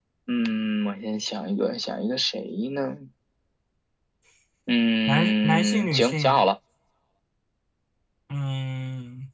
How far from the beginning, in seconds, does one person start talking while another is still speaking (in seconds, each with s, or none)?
5.1 s